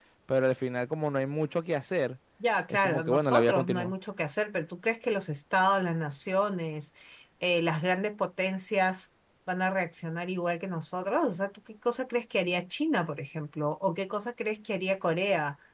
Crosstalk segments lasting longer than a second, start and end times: 2.7-3.9

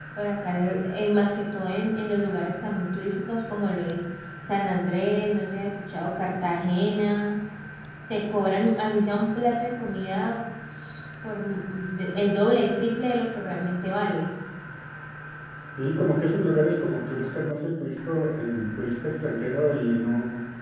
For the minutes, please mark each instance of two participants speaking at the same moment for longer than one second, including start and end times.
none

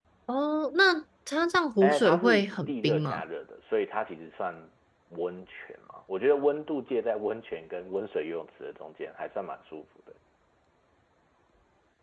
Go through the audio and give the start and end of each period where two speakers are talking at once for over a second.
1.8-3.2

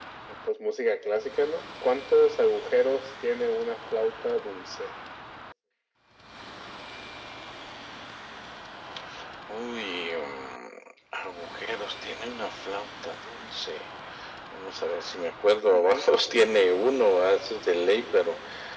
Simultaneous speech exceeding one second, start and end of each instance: none

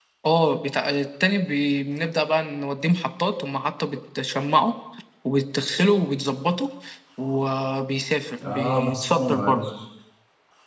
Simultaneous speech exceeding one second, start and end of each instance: 8.4-9.7

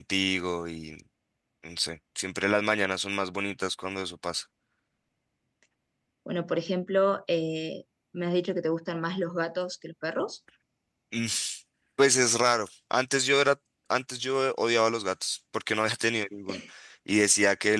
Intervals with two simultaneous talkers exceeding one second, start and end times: none

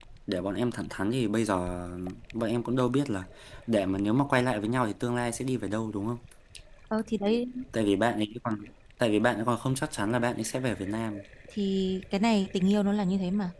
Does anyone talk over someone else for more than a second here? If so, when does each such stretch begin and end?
none

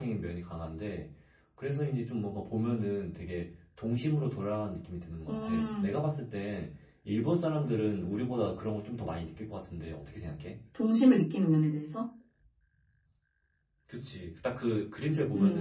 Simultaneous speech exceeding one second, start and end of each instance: none

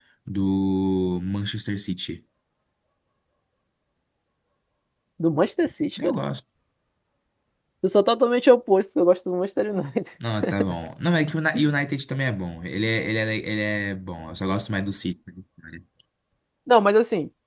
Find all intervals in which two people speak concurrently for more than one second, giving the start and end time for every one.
none

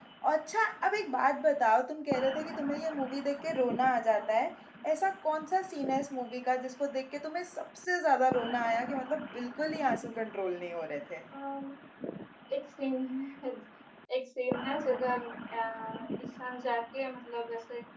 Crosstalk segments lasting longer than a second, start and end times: none

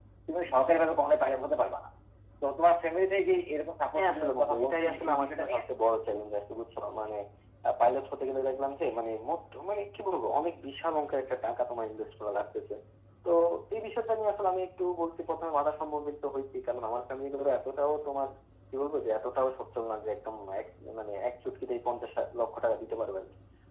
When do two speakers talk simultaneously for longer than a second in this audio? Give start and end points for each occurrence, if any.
4.0-5.6

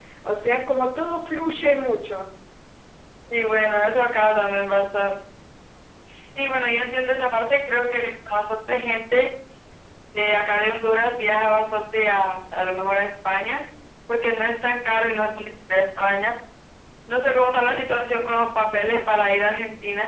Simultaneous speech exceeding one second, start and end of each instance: none

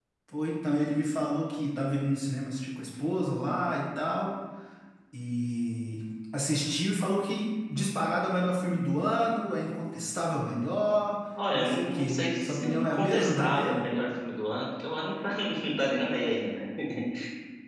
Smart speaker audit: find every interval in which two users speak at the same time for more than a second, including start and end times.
11.5-13.9

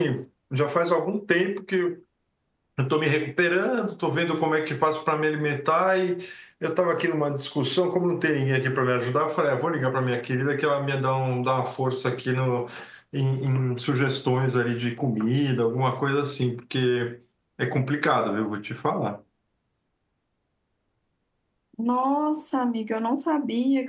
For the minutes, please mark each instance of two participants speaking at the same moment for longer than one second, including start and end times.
none

